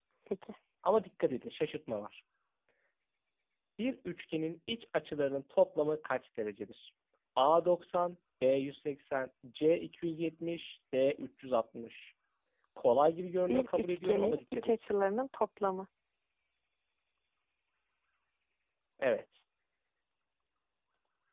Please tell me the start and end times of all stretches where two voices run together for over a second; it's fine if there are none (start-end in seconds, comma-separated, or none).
13.5-14.7